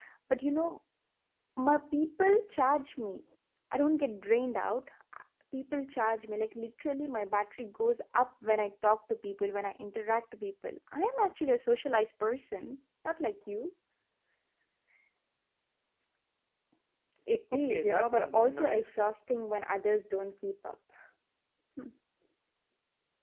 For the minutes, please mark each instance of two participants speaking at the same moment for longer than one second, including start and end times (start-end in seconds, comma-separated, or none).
17.5-19.0